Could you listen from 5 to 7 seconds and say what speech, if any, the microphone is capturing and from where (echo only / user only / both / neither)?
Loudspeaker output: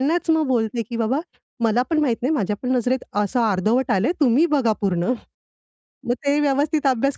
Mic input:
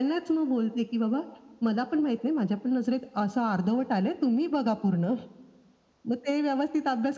echo only